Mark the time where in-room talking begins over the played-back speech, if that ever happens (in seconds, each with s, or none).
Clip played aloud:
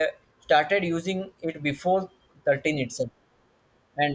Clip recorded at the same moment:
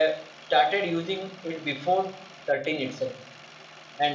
none